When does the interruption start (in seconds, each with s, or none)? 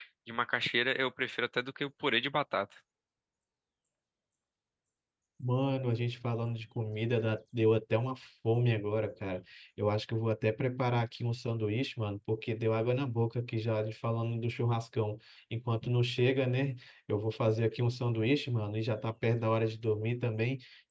none